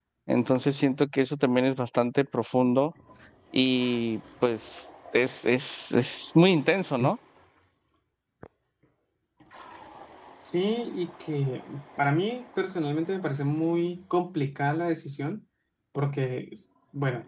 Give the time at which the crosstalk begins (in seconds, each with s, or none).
none